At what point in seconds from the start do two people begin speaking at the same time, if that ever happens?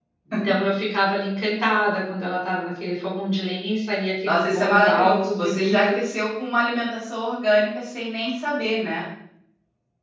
4.2 s

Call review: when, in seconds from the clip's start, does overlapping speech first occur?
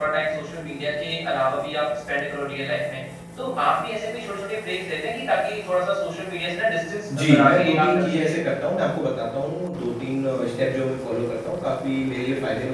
7.1 s

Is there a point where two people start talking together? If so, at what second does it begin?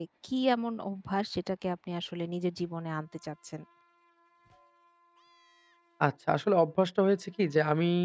none

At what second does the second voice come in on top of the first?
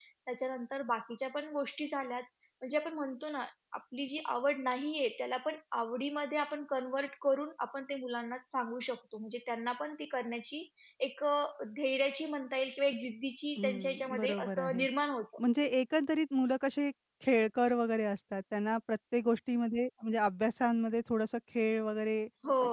13.6 s

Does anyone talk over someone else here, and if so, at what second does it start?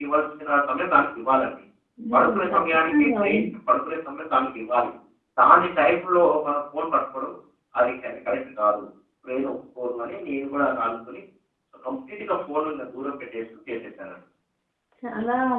2.1 s

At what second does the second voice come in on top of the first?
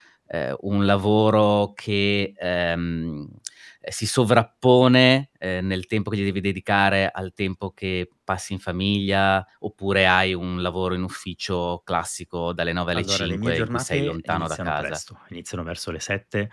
13.0 s

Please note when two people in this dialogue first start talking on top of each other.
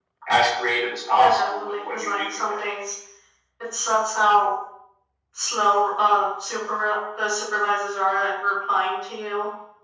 1.1 s

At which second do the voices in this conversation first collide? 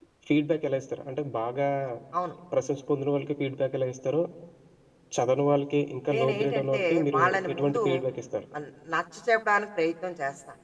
6.1 s

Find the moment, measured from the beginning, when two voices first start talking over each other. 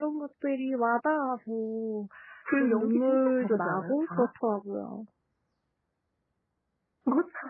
2.6 s

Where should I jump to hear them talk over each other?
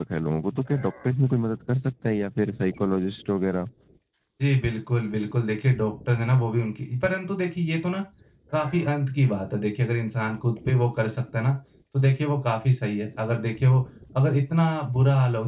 none

